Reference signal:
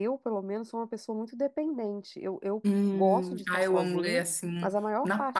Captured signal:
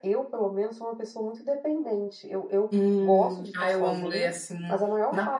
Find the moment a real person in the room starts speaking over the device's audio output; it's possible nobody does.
none

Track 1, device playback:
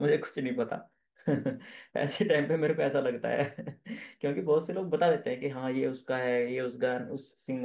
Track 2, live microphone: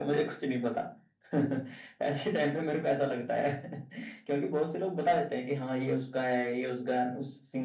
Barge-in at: none

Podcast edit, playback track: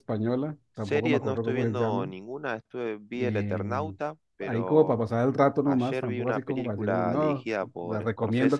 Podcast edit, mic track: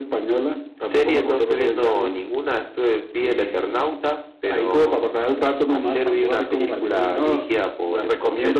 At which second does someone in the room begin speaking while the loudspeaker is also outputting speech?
none

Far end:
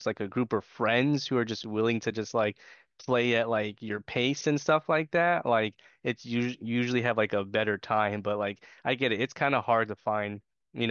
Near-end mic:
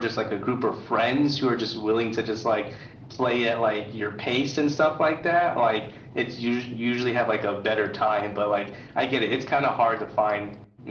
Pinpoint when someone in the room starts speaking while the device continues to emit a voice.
none

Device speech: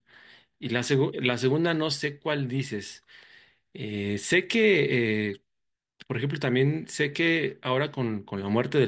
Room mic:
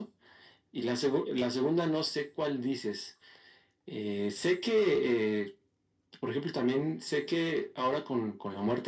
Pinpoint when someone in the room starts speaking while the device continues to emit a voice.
none

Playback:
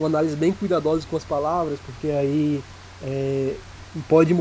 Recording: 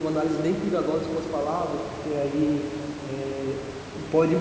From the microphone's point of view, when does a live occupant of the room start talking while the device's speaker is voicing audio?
none

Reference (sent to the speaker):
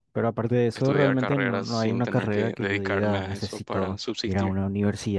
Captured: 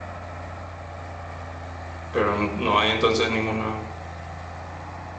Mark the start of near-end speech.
2 s

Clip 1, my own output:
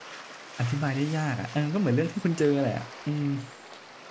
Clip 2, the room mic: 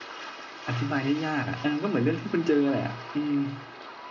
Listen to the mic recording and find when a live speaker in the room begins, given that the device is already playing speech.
none

